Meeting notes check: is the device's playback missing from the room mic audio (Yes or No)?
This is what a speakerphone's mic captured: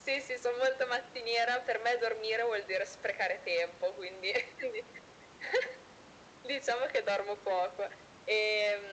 No